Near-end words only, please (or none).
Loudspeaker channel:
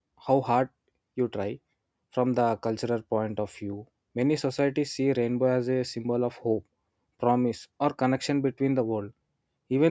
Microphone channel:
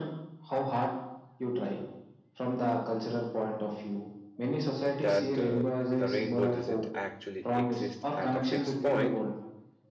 that uh, the rainbow doesn't actually exist at a fixed point,